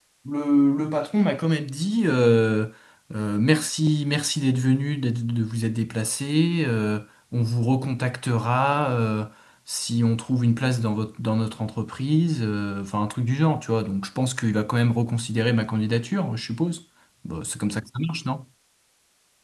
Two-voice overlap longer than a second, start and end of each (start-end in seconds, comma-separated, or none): none